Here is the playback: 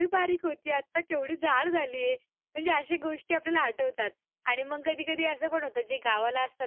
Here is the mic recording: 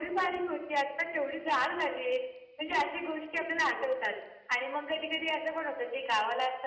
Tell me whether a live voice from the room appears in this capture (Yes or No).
No